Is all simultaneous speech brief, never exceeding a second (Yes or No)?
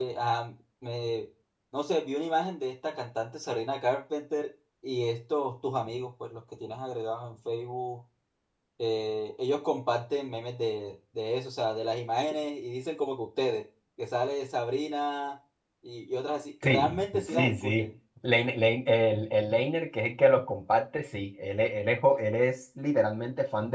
No